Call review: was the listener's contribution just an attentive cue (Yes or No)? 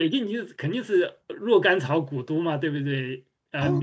Yes